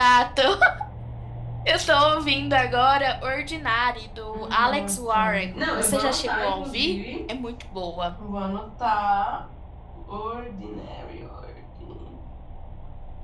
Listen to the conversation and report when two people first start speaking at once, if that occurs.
4 s

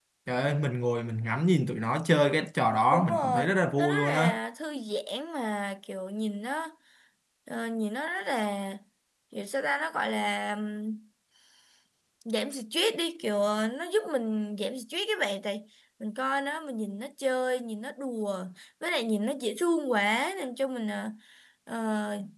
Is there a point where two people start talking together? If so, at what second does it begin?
3 s

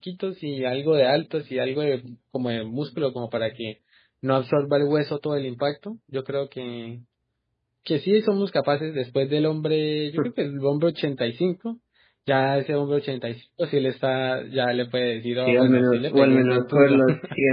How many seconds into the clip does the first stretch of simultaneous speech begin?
15 s

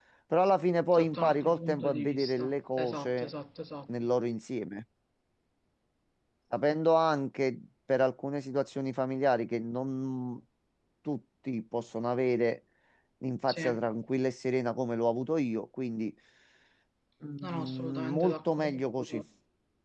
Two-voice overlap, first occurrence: 1 s

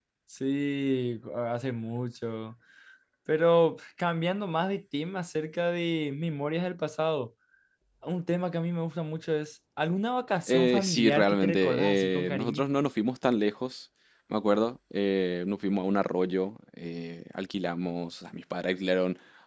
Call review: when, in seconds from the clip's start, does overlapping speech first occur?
10 s

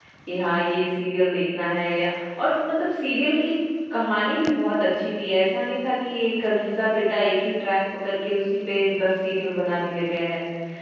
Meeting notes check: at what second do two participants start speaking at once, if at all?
none

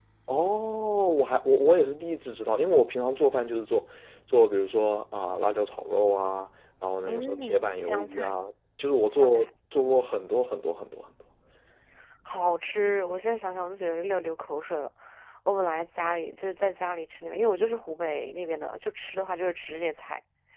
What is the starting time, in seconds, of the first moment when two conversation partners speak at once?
7 s

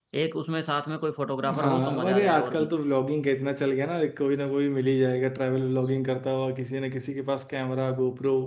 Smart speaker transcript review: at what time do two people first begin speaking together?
1 s

